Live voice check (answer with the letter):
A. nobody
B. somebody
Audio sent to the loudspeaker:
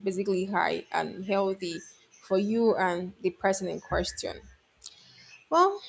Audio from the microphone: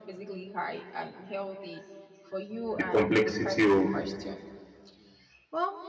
B